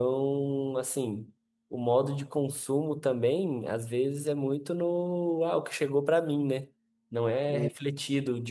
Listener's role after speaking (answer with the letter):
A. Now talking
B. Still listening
B